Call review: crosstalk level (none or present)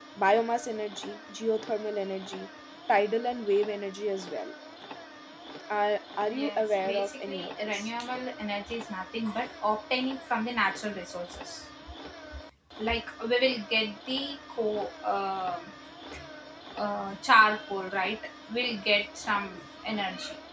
present